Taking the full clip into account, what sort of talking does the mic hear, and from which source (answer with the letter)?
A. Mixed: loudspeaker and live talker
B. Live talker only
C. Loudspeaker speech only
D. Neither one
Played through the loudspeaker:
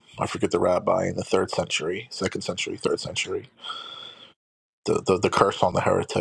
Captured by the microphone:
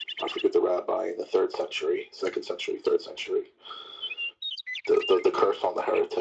C